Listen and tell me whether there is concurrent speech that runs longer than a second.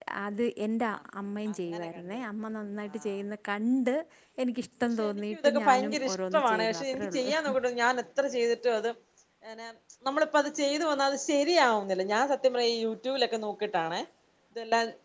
Yes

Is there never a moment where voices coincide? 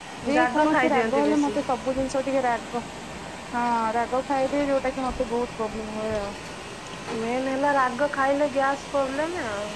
No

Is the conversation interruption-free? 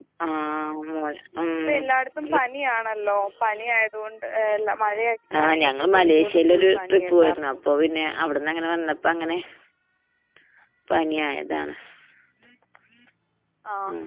No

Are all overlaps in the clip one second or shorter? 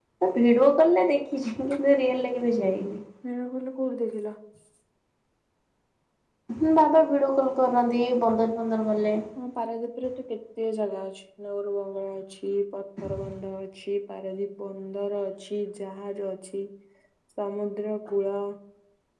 Yes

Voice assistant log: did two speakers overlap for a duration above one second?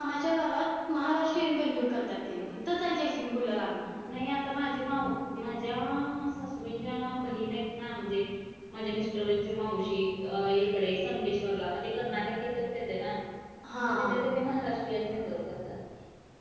No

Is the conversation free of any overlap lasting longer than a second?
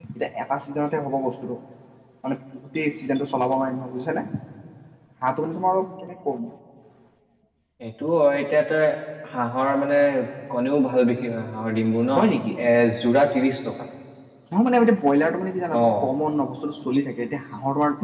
Yes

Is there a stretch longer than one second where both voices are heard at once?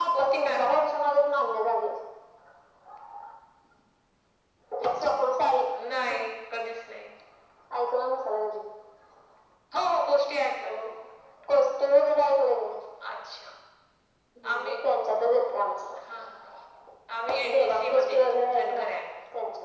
Yes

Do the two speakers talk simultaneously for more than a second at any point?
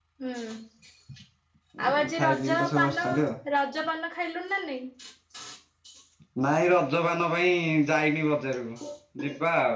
Yes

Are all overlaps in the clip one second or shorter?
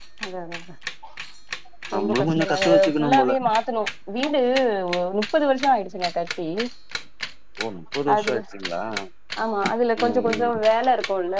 No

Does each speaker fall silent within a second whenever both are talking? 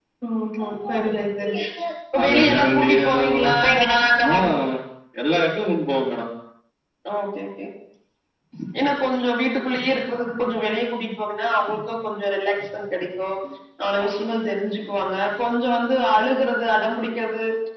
No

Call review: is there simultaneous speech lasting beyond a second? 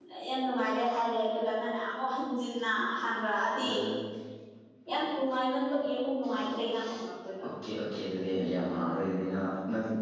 No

